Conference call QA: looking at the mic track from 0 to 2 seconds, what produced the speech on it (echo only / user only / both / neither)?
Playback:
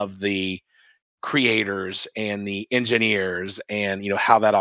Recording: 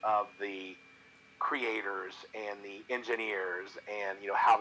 echo only